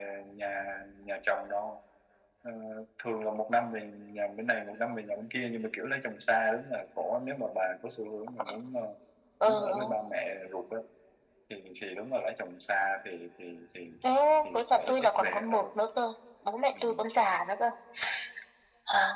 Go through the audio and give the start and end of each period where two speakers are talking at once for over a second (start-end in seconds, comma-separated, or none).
14.5-15.8